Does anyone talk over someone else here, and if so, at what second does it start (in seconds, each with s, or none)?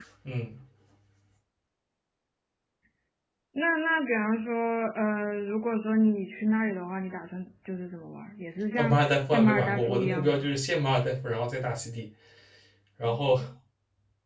8.8 s